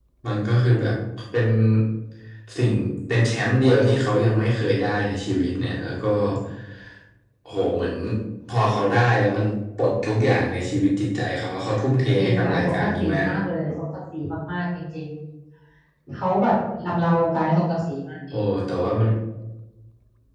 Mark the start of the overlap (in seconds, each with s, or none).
12.2 s